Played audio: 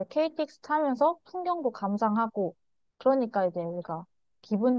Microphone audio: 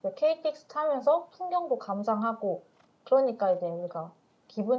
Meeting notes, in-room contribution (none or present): none